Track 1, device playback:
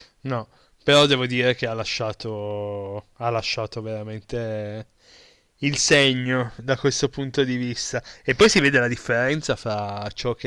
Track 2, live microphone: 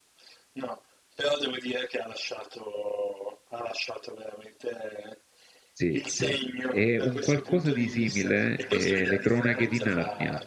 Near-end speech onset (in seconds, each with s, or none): 5.7 s